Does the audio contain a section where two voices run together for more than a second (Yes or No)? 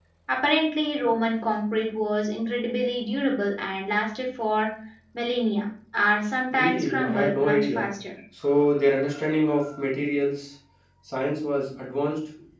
Yes